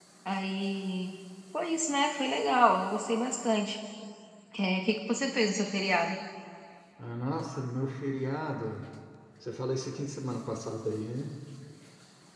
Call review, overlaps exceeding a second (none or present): none